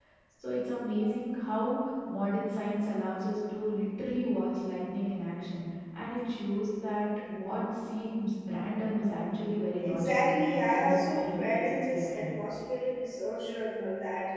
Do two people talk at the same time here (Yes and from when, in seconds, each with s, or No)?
Yes, from 9.8 s